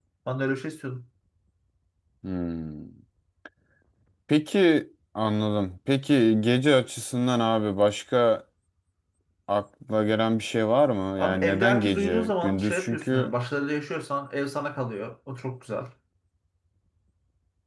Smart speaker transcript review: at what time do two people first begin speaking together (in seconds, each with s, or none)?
11.2 s